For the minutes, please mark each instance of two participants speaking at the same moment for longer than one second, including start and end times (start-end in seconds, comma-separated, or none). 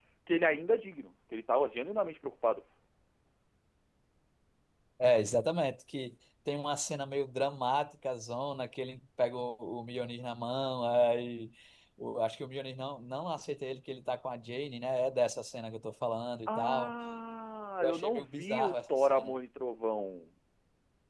17.8-19.3